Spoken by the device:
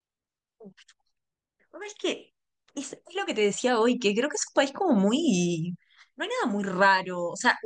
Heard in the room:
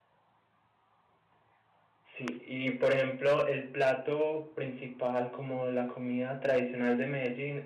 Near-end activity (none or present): present